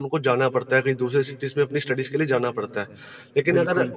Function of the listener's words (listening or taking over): listening